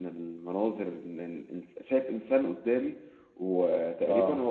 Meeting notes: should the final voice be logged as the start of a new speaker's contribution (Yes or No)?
No